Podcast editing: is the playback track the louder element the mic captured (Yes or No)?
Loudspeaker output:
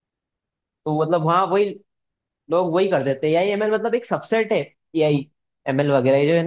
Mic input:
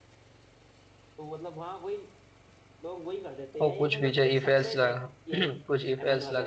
No